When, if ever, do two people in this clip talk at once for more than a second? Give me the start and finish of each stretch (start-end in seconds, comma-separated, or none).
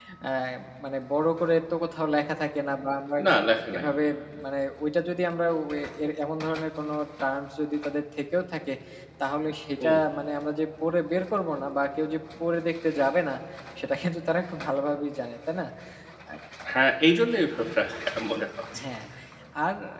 none